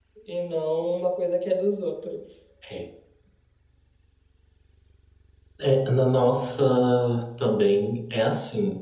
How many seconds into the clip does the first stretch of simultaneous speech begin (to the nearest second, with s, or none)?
none